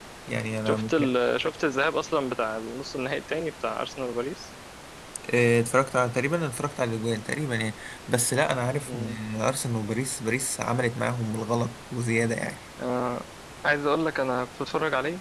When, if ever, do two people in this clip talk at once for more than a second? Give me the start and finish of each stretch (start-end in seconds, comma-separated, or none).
none